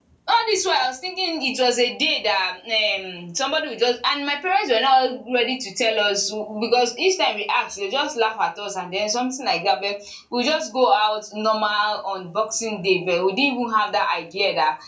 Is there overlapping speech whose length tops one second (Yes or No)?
No